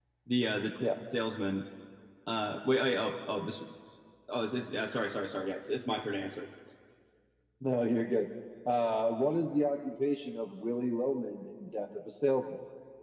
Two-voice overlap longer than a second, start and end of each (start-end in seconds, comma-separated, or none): none